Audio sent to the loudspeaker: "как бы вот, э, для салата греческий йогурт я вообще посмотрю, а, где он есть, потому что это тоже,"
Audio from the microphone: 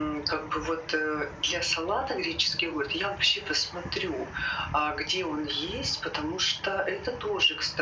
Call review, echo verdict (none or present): present